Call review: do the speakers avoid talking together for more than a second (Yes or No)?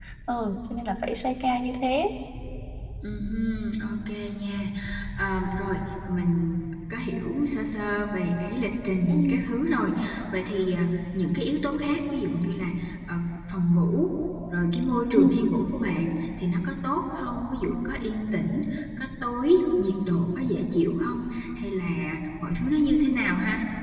Yes